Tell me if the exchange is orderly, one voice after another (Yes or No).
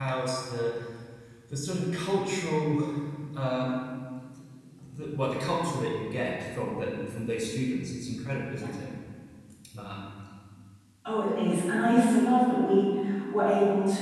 Yes